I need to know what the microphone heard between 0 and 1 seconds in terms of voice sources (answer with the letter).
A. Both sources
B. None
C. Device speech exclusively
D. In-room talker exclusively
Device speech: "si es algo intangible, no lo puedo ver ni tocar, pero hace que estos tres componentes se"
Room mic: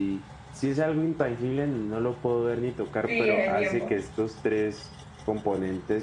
C